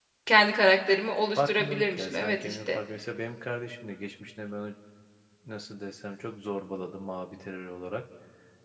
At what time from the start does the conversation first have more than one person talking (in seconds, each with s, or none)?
1.3 s